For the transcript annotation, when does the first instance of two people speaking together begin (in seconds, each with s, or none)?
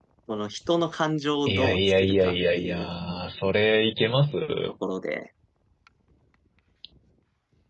1.5 s